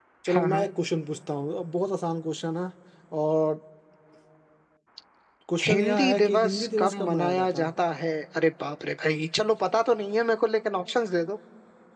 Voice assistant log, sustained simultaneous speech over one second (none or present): present